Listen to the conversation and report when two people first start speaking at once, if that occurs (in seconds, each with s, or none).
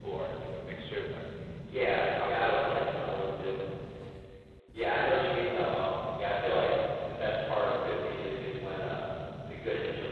2.0 s